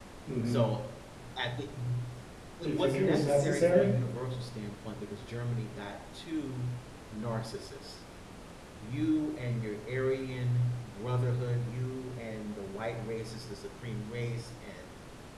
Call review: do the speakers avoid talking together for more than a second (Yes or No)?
No